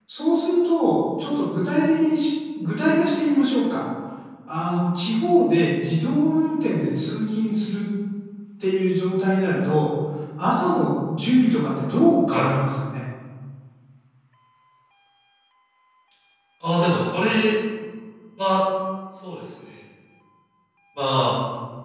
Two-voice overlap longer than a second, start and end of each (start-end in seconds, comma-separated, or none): none